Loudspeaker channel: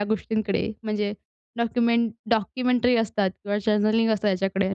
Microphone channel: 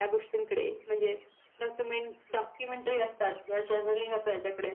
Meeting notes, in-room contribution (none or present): none